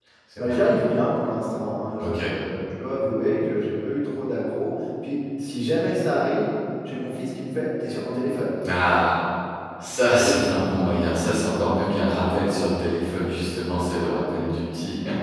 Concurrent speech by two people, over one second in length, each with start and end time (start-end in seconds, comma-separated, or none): none